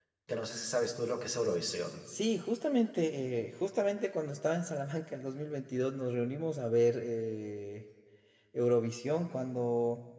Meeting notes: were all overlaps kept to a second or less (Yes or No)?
Yes